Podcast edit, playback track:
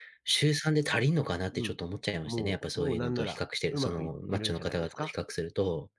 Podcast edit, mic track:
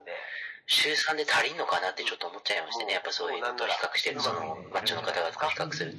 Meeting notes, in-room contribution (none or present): present